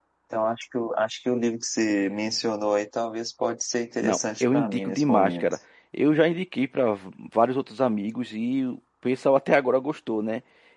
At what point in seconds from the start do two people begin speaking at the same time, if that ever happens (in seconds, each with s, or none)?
4.0 s